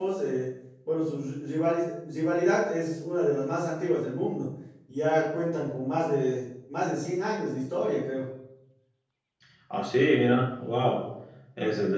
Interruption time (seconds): none

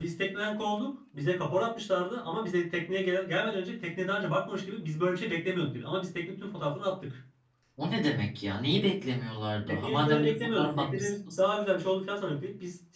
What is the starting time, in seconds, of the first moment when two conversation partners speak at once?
9.7 s

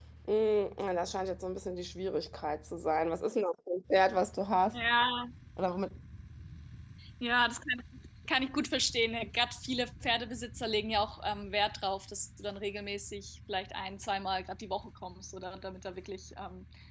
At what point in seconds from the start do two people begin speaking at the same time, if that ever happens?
none

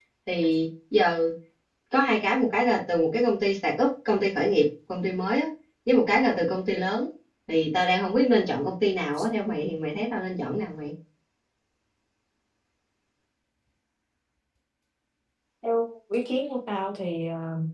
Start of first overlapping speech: none

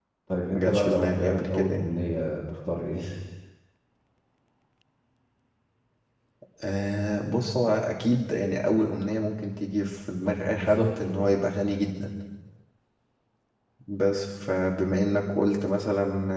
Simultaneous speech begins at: 0.5 s

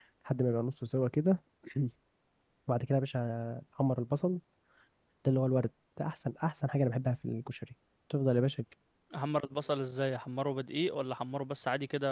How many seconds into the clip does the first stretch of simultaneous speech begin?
none

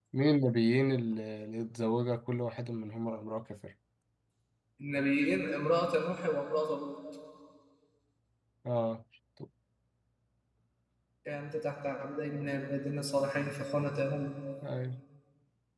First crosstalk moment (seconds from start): none

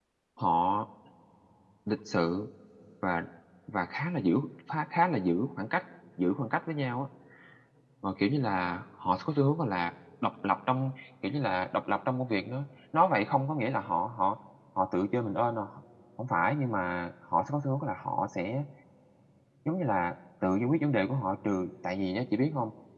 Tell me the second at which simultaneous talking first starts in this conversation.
none

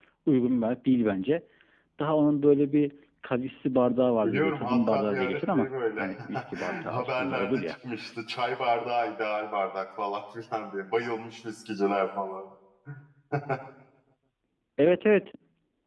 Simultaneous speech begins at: 4.2 s

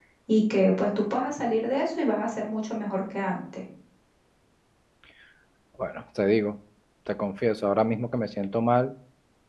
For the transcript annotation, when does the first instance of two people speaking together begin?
none

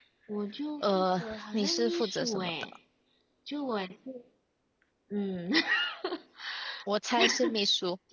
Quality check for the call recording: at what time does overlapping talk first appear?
0.8 s

